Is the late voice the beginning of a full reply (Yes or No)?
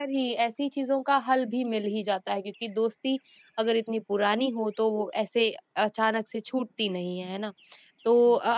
No